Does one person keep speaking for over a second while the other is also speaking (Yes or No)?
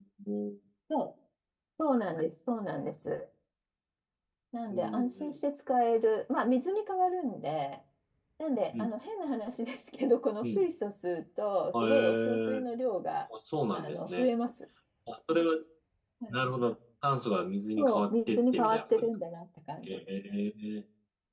Yes